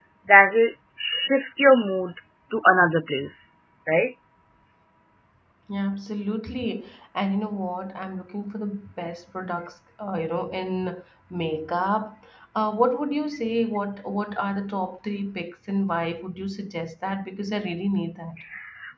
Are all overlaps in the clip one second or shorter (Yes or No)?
Yes